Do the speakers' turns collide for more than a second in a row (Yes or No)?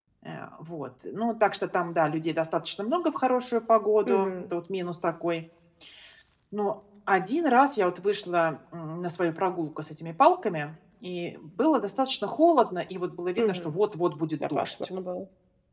No